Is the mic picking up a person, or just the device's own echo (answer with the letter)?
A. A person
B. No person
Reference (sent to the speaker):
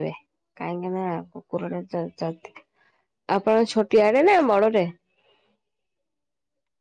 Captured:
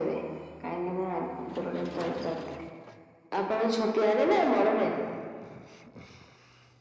B